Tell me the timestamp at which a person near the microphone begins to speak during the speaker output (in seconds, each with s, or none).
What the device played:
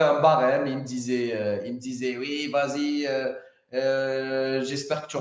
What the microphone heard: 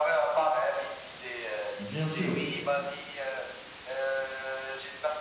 1.8 s